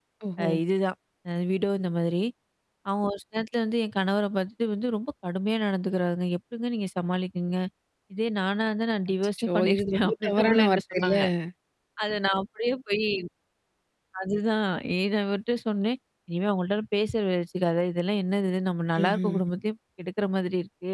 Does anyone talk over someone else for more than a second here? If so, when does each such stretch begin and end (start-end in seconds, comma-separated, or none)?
9.4-11.1